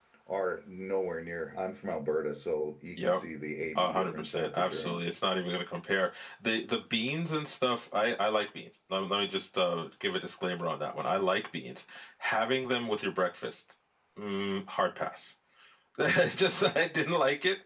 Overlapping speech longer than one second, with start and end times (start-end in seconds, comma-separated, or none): 3.8-5.0